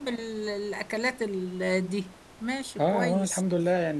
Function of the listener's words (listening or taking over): taking over